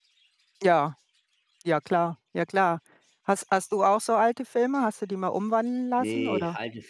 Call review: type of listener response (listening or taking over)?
taking over